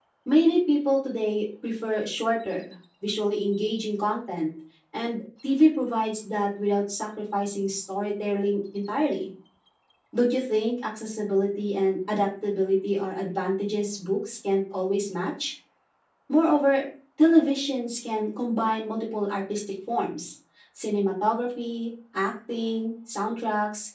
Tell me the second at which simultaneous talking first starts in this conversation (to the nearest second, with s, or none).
none